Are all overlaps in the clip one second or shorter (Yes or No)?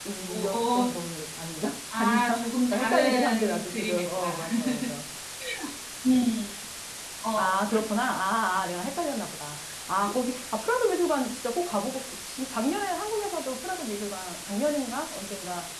No